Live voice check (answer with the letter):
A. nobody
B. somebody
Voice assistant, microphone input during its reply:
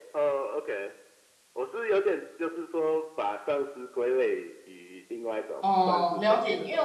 B